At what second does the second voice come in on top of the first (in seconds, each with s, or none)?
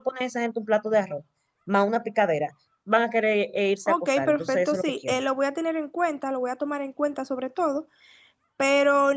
3.9 s